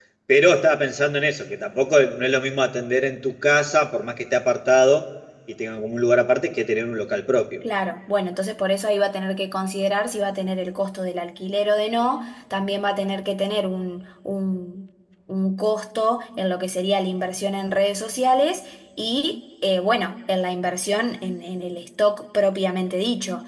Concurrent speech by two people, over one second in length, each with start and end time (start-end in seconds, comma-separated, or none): none